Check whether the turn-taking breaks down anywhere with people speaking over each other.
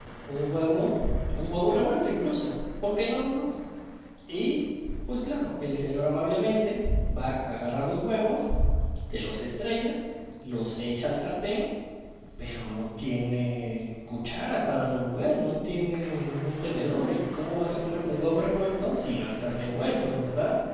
No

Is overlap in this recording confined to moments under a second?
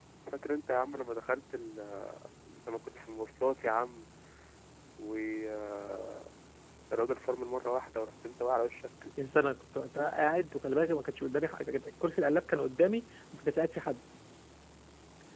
Yes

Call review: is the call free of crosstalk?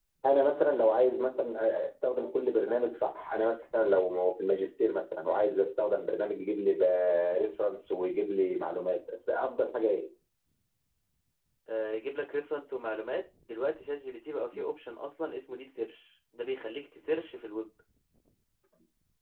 Yes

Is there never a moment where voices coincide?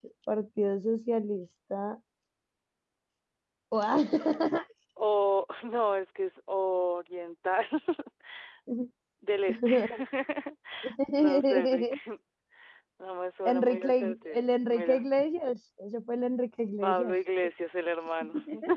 No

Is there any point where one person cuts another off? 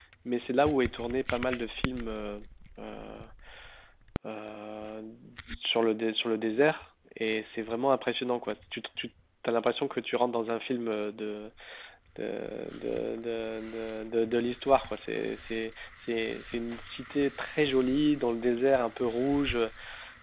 No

